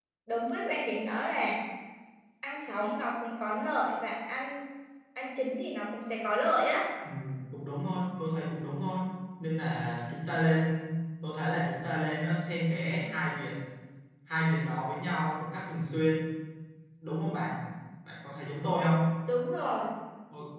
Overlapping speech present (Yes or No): No